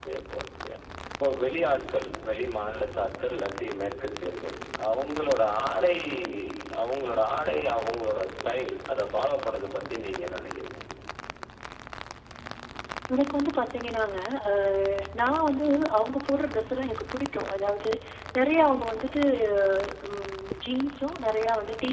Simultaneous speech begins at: none

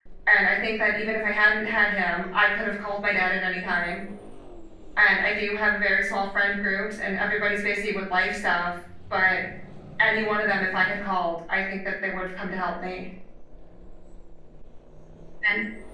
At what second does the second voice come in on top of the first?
none

